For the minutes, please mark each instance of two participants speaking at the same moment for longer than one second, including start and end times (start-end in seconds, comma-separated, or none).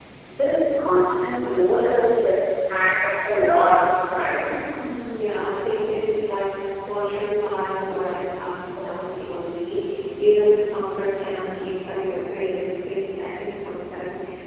none